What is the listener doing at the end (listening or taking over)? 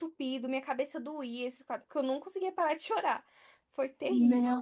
taking over